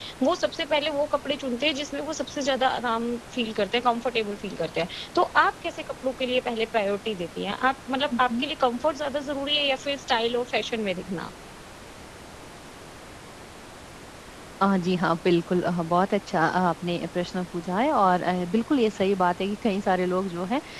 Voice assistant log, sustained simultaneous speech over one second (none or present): none